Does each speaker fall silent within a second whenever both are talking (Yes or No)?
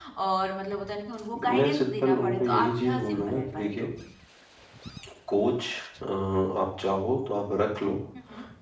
No